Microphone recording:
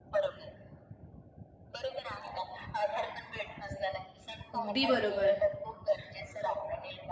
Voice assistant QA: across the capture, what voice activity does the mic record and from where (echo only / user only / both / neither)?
both